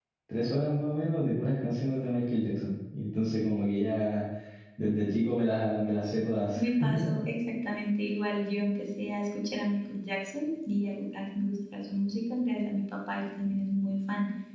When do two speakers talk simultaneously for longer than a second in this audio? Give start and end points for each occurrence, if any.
none

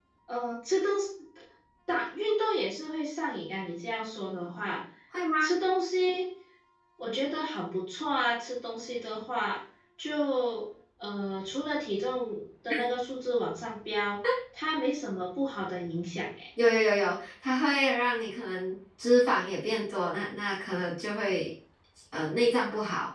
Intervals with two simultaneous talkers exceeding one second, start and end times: none

